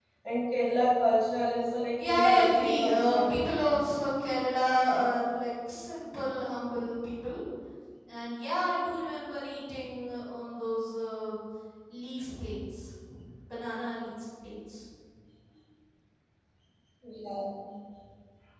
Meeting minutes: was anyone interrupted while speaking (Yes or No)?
Yes